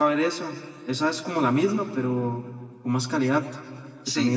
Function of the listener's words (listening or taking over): taking over